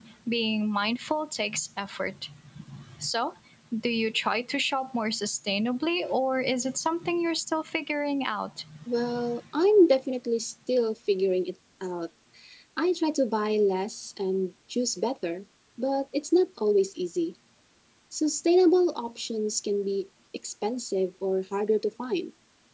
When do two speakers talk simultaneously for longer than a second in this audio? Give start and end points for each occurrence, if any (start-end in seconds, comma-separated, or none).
none